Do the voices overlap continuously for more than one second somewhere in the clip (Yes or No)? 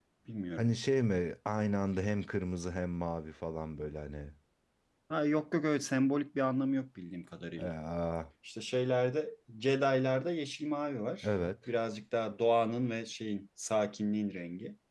No